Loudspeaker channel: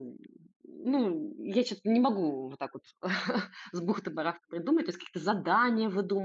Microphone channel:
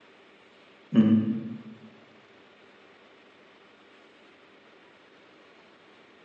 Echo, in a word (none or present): none